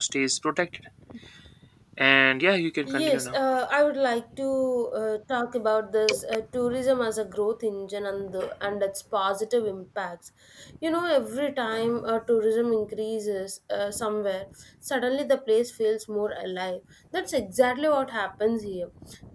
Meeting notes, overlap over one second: none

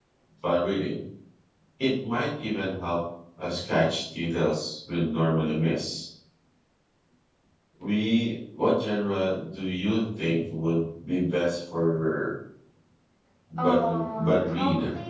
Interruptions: present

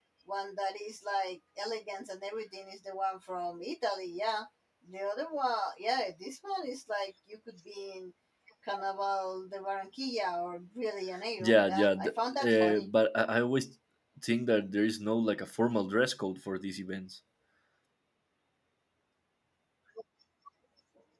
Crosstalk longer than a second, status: present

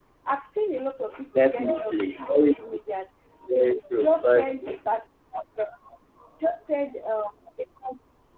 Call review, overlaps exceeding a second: present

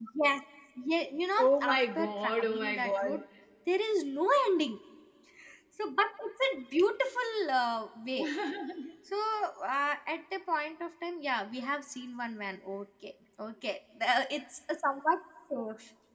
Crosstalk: present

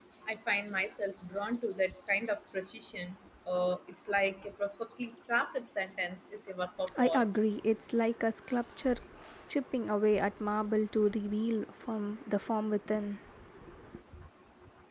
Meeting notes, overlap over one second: none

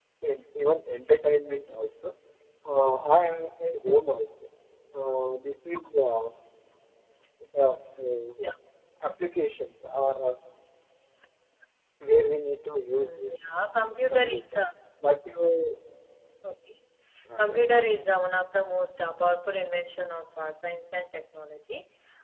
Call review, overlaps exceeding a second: none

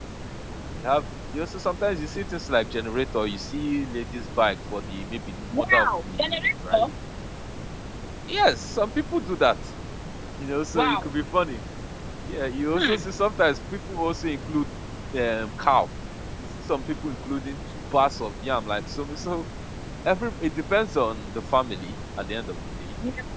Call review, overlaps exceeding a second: present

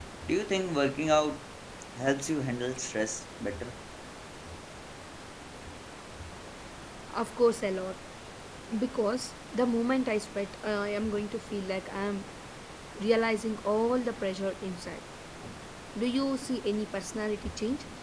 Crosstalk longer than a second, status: none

